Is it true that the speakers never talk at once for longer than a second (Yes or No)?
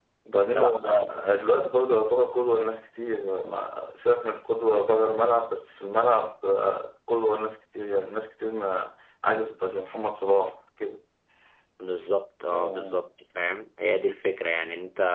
Yes